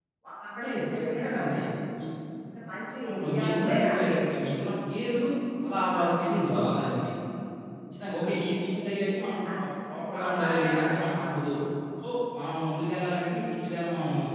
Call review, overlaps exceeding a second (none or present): present